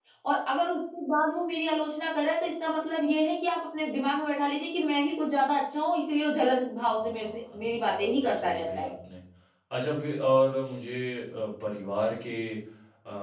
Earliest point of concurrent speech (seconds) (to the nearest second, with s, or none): 7 s